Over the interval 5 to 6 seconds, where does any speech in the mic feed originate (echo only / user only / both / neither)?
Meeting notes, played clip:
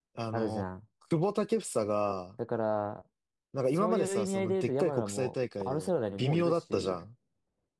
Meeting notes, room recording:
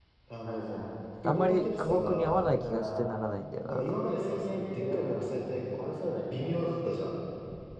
echo only